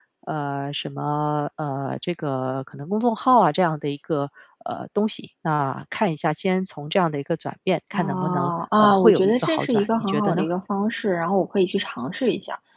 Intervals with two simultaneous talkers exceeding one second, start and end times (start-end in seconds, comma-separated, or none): 7.9-10.4